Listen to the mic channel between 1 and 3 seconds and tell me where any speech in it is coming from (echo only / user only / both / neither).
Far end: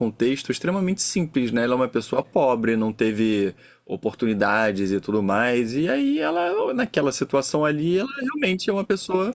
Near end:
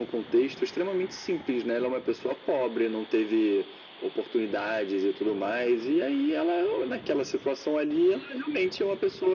echo only